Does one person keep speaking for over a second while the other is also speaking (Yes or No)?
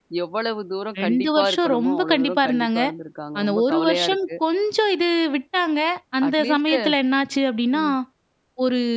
Yes